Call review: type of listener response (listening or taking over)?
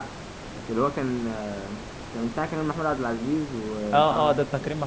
taking over